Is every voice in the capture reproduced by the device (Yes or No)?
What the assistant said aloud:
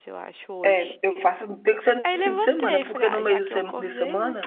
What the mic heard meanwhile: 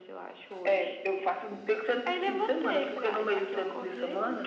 Yes